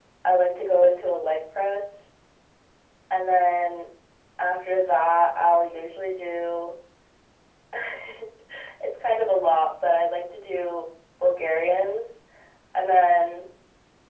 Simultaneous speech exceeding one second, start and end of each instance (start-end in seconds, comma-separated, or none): none